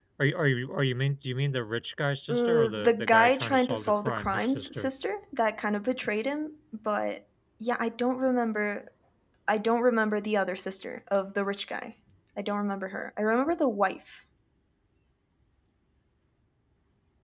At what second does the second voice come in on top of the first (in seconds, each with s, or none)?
2.3 s